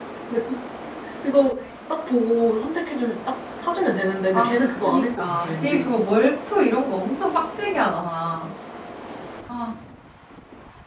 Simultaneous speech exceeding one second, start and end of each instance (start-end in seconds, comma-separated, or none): 4.3-5.9